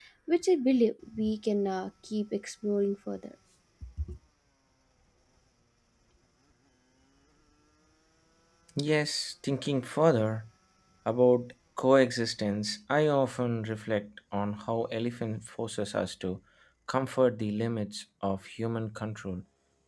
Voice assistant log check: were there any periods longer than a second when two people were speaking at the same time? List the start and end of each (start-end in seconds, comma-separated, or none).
none